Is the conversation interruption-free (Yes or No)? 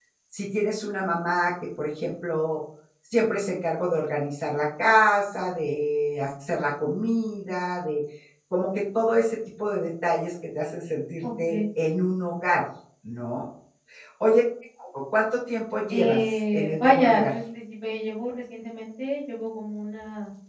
No